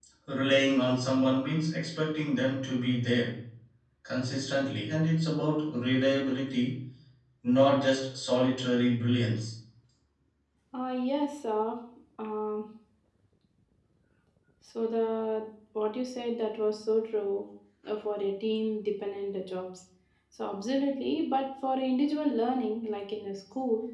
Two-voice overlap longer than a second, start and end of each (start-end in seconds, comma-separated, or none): none